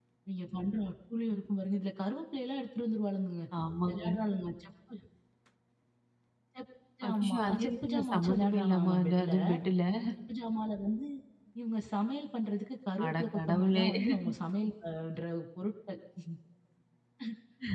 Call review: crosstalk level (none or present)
present